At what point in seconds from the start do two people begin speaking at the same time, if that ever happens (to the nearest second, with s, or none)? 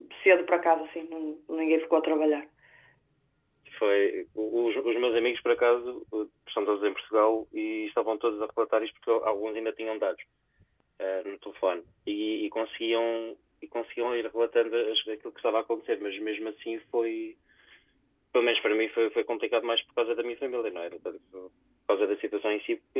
none